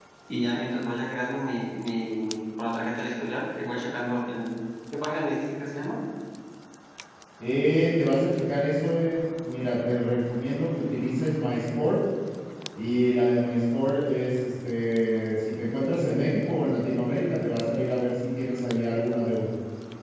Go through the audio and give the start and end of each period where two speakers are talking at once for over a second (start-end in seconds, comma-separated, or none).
none